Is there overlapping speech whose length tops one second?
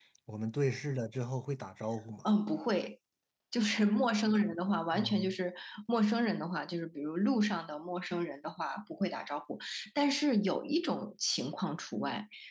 No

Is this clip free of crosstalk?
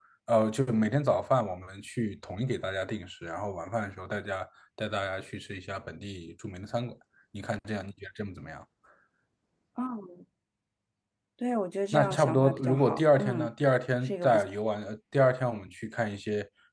No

